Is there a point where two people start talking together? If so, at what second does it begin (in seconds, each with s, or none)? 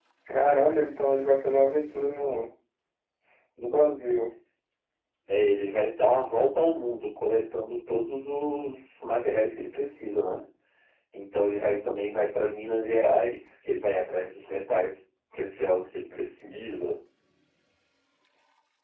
none